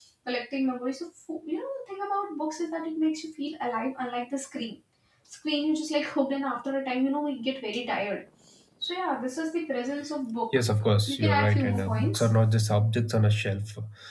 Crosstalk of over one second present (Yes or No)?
Yes